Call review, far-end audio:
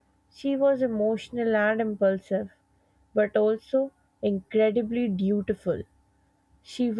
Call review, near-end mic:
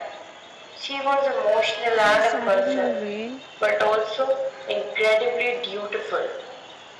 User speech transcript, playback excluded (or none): she started her reign